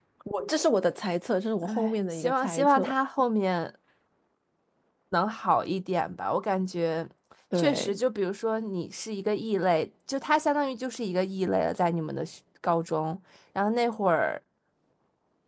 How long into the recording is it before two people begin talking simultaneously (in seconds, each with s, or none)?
1.6 s